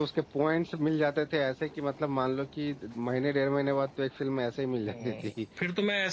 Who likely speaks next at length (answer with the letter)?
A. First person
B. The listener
B